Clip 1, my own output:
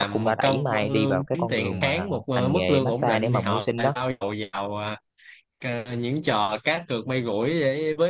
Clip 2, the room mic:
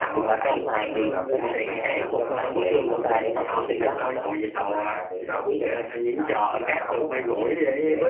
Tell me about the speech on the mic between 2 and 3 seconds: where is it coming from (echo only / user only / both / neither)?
both